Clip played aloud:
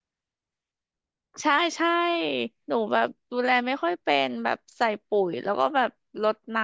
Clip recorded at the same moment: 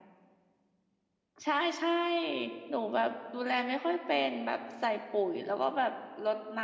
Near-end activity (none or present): none